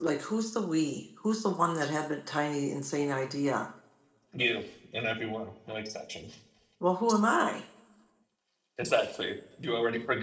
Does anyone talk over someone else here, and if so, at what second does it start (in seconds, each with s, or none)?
none